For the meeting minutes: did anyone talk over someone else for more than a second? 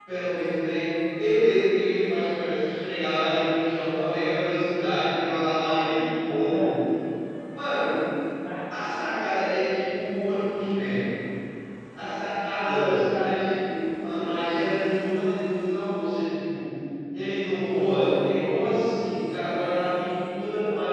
Yes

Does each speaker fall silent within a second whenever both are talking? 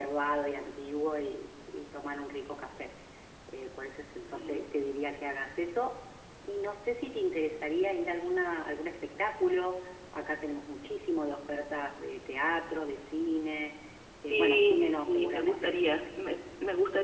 No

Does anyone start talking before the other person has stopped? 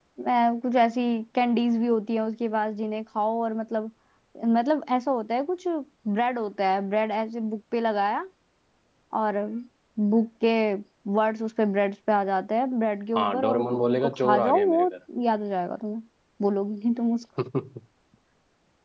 Yes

